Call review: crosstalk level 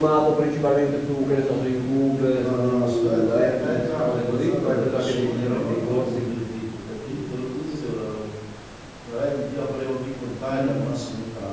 present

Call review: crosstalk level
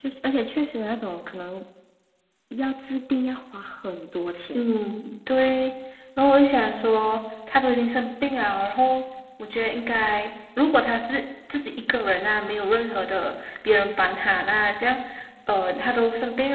none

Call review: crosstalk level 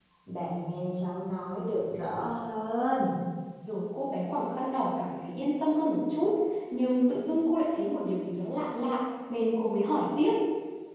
none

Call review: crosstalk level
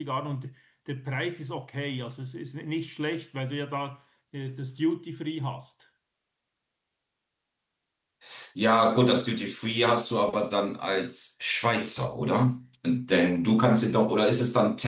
none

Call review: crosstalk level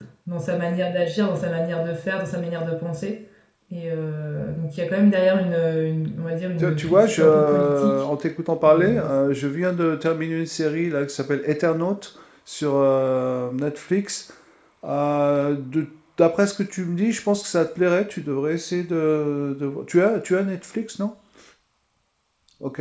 present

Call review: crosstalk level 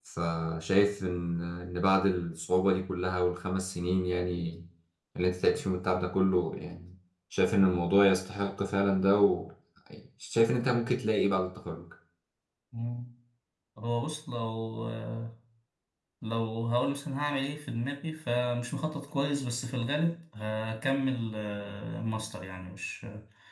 none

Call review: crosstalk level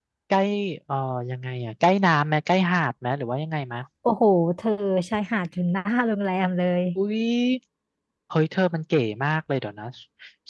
none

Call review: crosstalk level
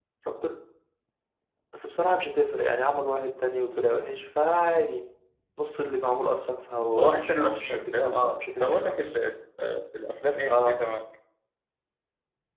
present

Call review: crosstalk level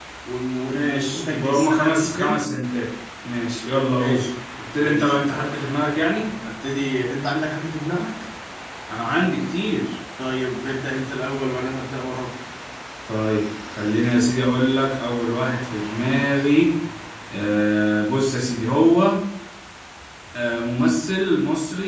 present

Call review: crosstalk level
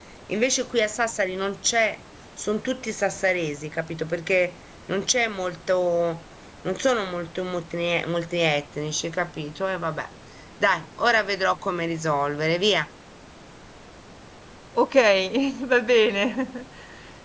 none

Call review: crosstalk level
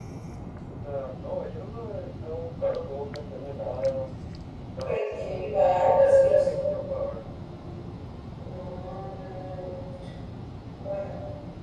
present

